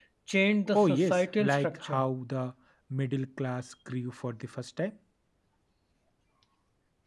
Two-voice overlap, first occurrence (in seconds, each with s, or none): 0.7 s